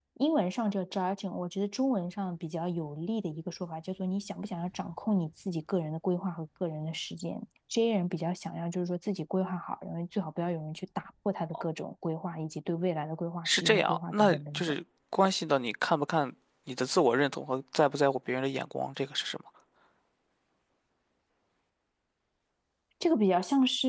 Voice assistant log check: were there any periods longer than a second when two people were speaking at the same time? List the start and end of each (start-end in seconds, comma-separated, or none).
13.4-14.7